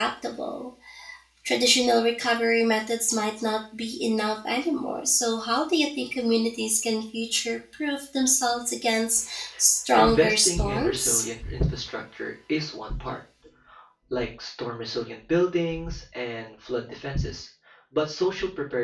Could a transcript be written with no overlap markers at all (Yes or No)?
No